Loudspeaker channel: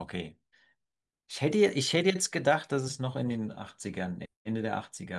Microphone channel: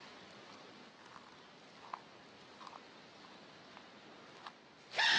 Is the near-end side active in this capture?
No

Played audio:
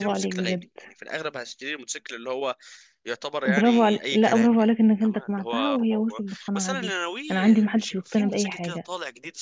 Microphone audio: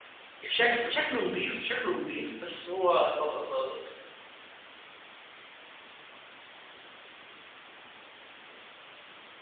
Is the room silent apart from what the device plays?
No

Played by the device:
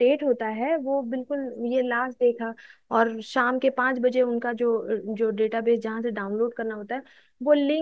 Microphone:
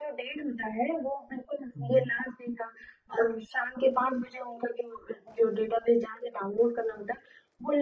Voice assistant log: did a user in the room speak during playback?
Yes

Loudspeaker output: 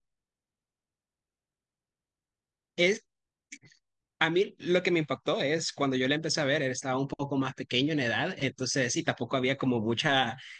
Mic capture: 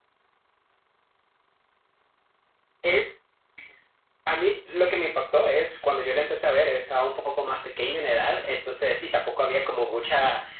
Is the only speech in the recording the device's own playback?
Yes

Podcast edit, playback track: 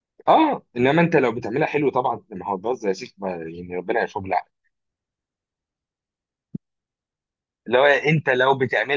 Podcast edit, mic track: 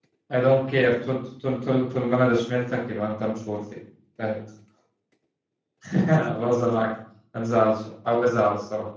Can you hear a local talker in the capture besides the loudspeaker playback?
Yes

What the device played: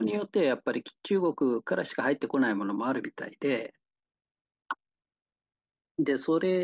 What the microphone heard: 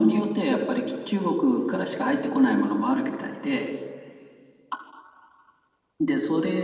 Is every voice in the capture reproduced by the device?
Yes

